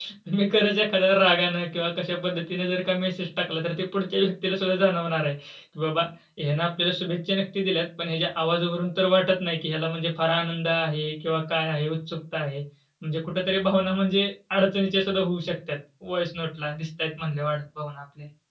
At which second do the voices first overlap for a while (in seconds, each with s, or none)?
none